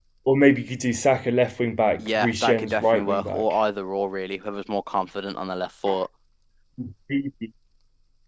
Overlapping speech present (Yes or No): Yes